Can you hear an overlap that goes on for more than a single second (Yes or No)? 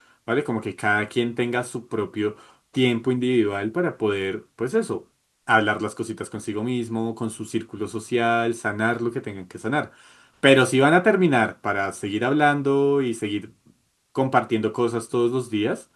No